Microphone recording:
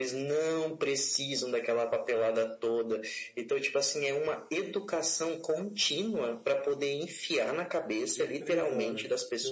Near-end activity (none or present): present